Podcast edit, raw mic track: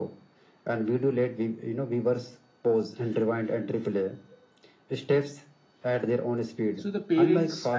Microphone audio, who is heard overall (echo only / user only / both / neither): both